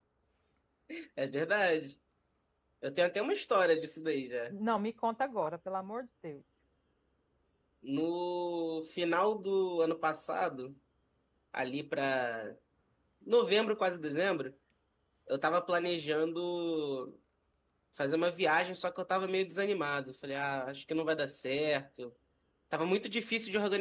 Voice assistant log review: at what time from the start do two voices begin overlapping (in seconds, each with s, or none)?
none